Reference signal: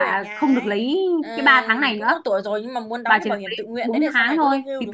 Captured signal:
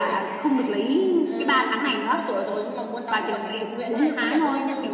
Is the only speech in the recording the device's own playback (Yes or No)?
No